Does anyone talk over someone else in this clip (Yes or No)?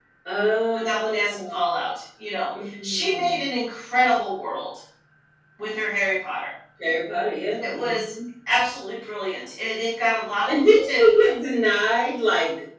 Yes